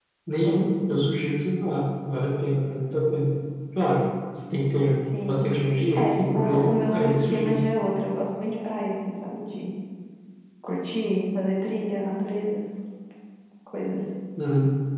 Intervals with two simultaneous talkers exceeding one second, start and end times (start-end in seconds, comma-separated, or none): 6.0-7.6